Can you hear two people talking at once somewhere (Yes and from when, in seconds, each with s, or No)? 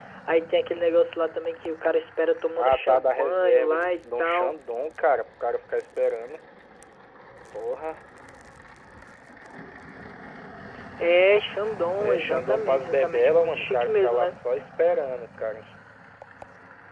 Yes, from 2.6 s